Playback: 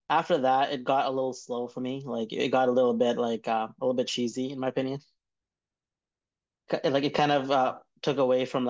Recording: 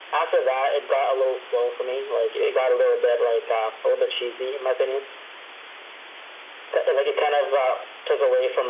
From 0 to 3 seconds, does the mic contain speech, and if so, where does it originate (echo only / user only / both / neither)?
echo only